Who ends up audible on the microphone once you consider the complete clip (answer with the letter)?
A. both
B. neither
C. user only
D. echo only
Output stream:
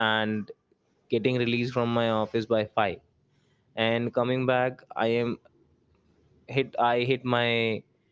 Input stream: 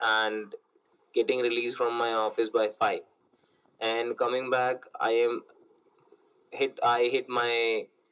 D